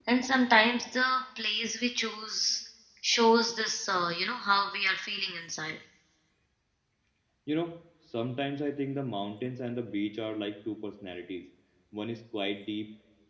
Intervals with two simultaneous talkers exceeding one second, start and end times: none

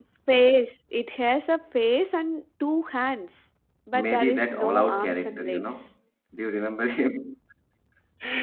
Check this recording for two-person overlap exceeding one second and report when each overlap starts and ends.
3.9-5.7

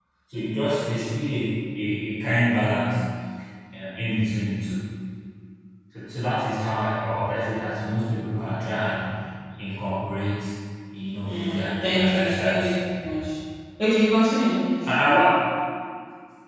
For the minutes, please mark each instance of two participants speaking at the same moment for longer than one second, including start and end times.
11.2-12.6

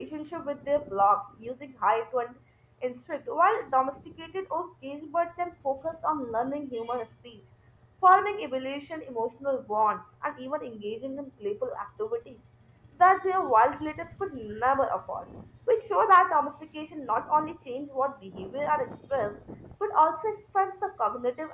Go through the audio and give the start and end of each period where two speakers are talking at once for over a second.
none

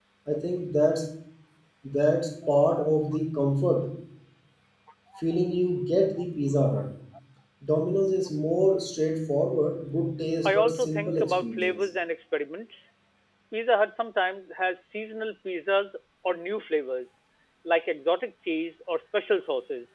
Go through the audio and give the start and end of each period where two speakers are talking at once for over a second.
10.4-11.8

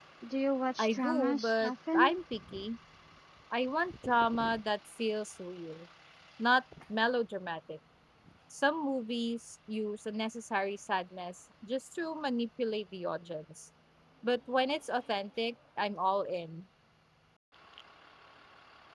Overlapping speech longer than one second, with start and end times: 0.8-2.1

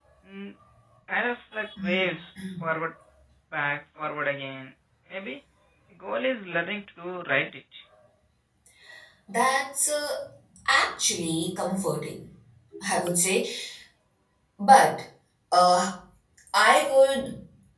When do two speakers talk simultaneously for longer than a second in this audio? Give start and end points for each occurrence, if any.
none

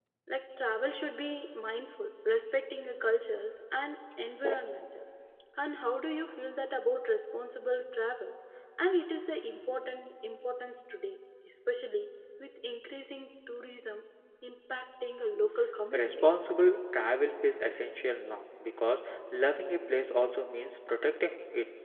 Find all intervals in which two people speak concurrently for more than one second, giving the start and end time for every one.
none

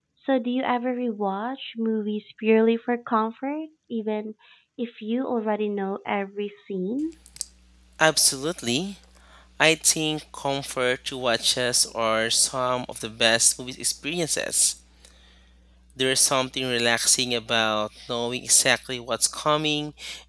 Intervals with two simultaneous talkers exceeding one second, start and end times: none

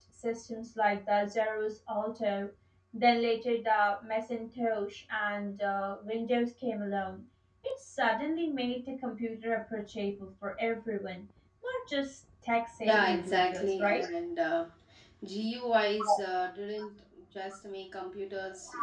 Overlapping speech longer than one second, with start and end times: 12.8-14.0

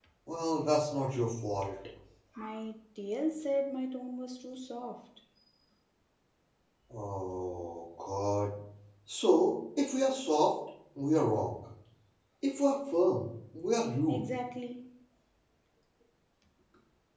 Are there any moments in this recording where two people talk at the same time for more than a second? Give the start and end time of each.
none

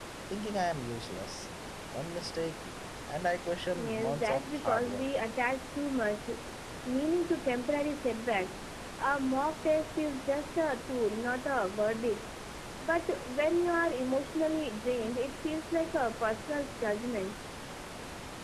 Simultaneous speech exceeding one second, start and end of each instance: 3.8-5.0

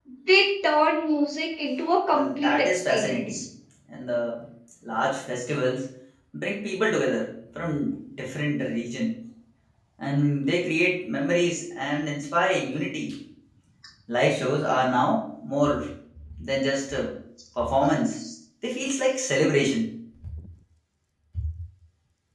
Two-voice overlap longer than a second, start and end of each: 2.1-3.4

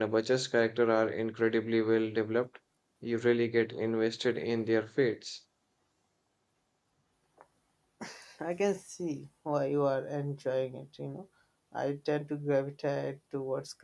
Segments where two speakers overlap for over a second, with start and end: none

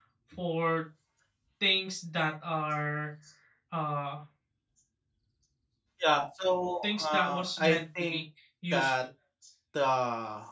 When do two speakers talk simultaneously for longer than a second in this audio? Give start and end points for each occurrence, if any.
6.8-8.2

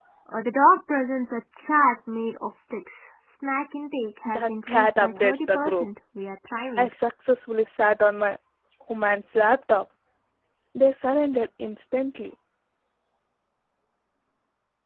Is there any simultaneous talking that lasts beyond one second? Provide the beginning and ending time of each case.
4.2-5.9

